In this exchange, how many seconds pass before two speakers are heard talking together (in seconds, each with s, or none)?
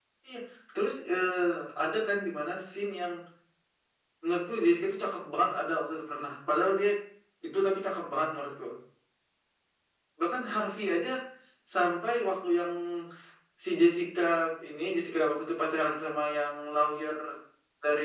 none